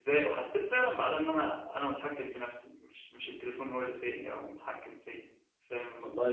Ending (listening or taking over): taking over